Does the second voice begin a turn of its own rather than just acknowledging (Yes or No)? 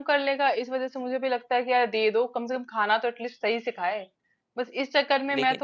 No